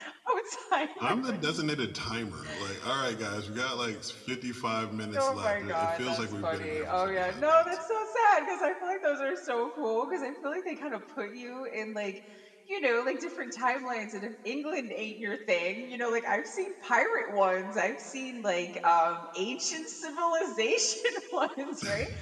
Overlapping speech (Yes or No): Yes